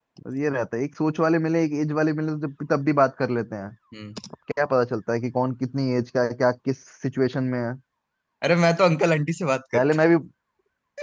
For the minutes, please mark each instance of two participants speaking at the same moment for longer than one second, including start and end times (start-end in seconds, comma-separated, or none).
none